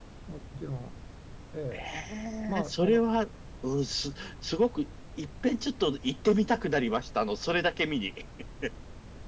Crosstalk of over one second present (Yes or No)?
No